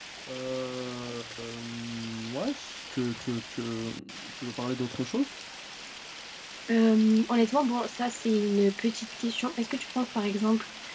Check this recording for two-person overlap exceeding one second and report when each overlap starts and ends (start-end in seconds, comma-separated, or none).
none